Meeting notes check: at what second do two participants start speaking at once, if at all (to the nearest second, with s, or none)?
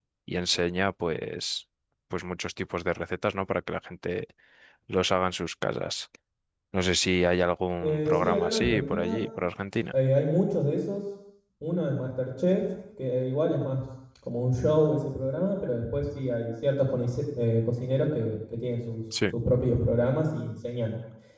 8 s